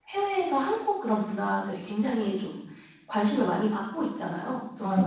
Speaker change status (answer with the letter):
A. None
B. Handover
A